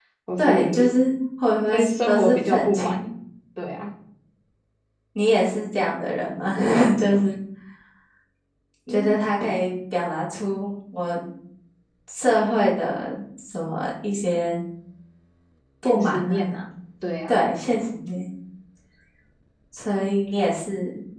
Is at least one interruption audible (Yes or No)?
Yes